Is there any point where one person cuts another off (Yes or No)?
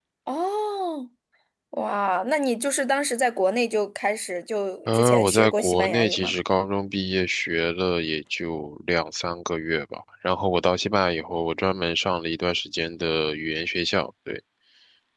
Yes